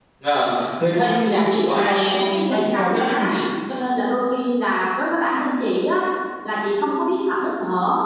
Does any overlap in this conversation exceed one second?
Yes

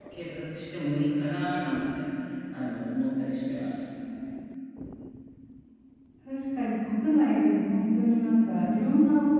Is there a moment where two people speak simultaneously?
No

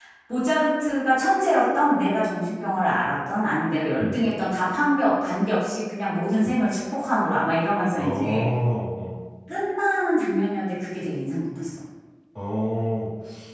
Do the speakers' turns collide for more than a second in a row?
No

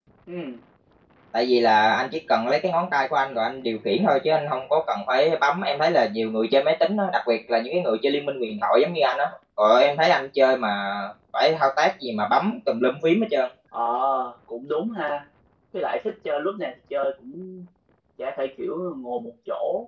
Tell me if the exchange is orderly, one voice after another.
Yes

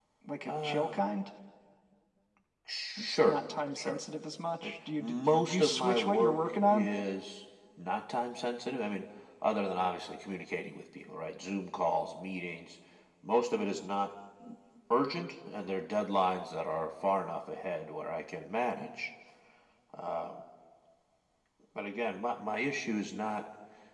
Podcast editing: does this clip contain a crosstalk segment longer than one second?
Yes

